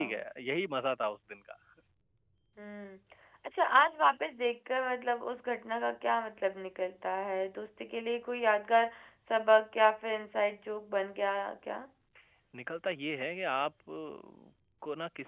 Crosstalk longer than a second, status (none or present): none